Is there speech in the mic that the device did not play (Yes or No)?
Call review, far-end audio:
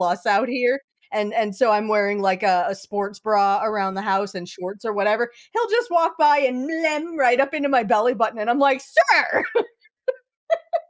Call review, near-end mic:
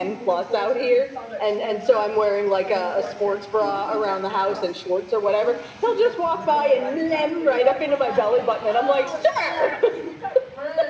Yes